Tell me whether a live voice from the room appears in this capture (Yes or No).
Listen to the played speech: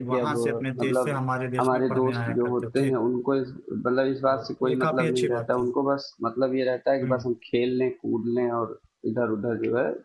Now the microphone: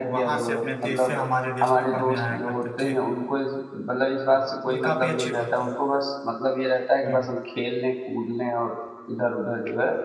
No